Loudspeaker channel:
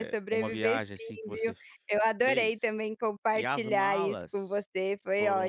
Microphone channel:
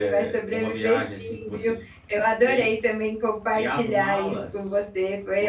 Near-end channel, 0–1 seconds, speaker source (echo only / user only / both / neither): echo only